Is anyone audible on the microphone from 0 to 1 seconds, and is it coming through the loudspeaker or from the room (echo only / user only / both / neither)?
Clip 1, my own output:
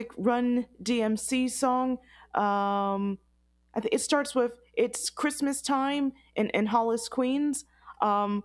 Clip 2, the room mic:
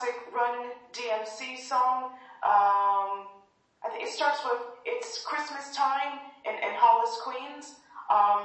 echo only